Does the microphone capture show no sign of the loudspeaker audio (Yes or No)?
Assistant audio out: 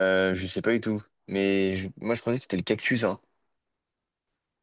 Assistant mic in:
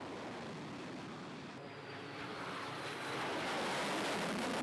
Yes